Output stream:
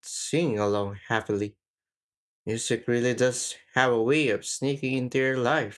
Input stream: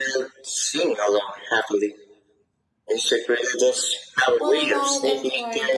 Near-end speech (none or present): present